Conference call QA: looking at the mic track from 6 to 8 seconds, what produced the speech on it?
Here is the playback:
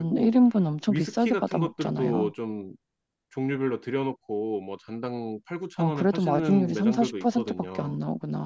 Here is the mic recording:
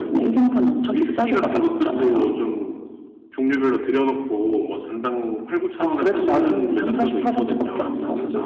both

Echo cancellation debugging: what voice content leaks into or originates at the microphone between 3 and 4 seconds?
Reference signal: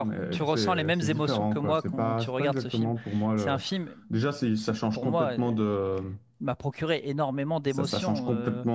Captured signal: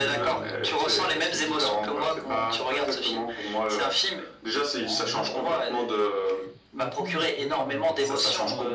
echo only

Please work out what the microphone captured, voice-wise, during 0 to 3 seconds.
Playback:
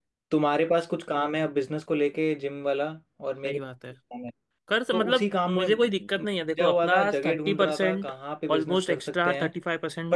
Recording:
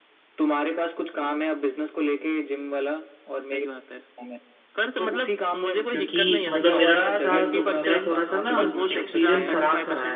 echo only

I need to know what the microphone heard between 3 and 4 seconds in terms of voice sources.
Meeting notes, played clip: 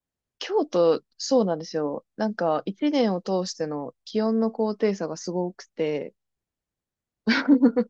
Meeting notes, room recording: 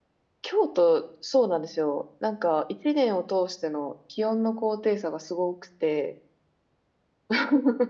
echo only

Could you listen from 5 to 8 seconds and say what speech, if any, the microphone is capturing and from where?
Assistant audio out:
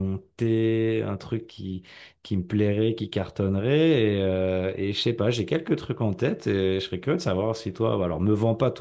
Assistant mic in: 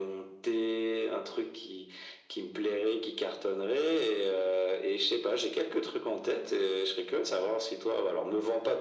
echo only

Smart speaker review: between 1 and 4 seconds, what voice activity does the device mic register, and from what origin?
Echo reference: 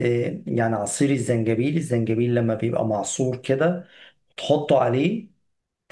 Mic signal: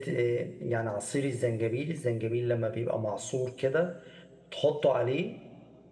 echo only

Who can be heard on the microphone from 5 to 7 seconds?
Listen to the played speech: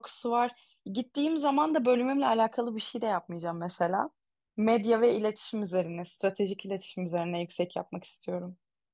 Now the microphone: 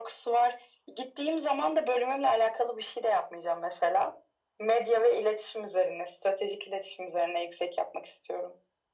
echo only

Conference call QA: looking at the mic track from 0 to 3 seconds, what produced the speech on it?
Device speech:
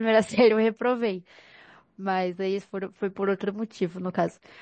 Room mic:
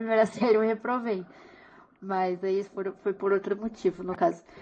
echo only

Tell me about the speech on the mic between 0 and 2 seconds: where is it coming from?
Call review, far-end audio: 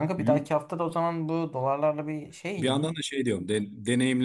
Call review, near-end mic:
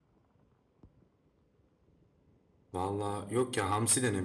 neither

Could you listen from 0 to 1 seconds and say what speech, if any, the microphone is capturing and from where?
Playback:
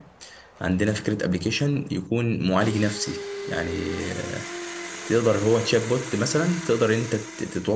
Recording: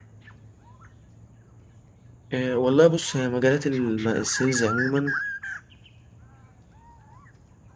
neither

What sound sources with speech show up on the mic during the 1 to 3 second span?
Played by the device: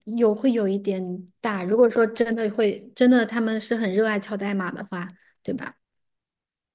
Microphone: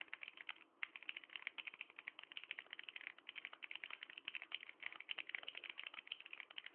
neither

